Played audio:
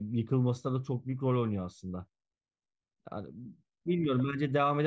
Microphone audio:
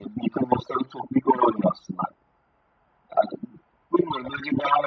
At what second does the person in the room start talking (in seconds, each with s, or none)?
none